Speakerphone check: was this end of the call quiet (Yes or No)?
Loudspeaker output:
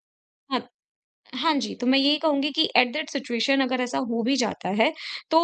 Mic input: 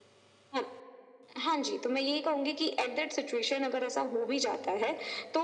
Yes